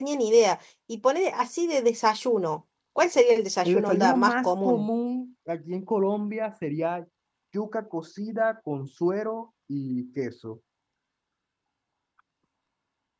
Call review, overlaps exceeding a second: present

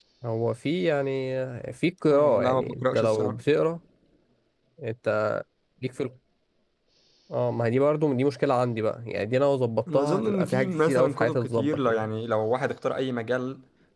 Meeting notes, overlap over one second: present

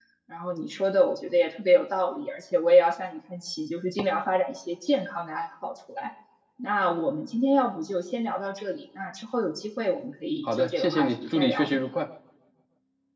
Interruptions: present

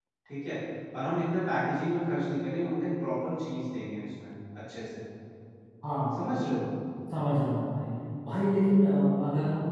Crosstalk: none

